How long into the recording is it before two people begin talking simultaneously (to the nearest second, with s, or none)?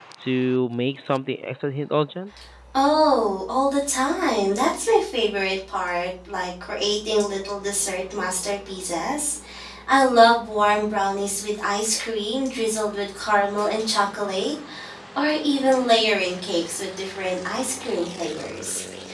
none